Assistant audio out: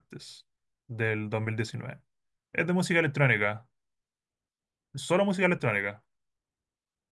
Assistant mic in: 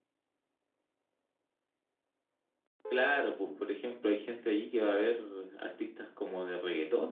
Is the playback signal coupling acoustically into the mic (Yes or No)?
No